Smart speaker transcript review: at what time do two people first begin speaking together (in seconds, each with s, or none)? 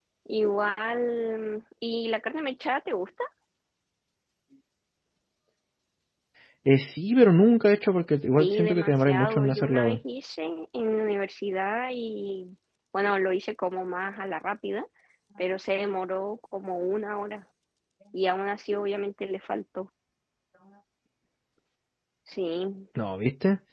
8.4 s